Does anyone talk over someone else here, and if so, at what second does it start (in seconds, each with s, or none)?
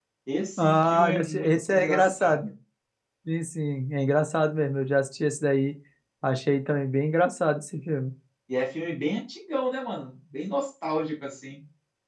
0.6 s